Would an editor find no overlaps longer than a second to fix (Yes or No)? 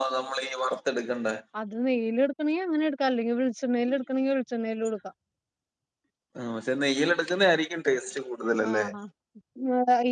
Yes